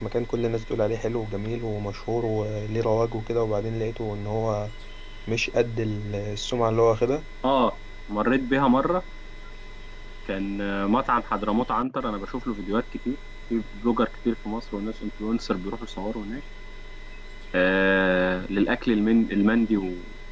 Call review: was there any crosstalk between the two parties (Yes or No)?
No